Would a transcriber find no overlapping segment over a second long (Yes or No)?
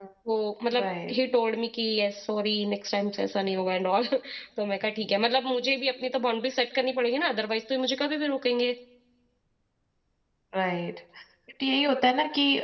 Yes